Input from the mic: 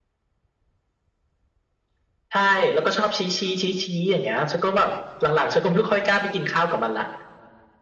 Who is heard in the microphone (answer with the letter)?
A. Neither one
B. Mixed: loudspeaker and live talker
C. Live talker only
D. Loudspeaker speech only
D